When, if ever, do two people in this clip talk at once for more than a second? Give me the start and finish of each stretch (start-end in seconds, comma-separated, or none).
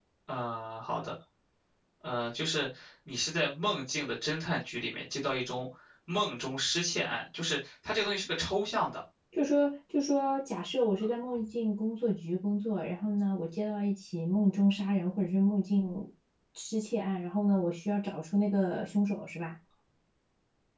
none